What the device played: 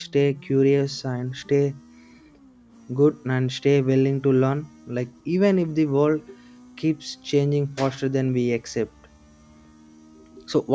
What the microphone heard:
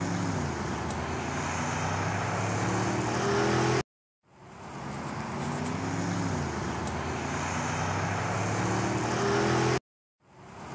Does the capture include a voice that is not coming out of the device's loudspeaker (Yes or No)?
No